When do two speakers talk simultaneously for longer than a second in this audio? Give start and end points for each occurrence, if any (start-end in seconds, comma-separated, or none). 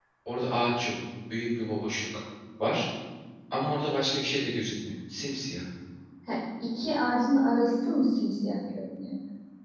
none